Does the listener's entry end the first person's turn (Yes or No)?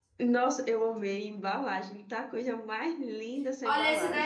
Yes